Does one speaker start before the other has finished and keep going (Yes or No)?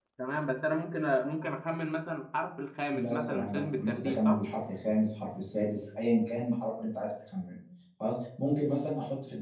Yes